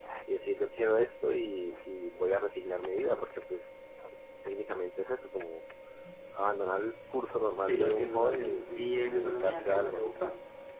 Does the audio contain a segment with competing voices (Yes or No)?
Yes